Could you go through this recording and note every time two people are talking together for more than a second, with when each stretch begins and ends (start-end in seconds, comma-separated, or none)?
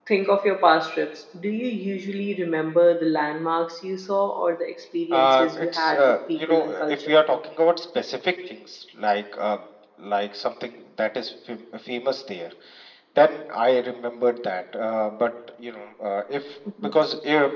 5.1-7.1